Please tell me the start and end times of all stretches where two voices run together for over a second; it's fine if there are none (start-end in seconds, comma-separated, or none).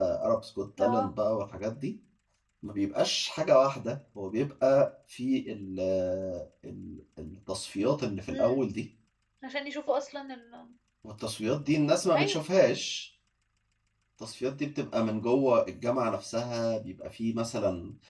none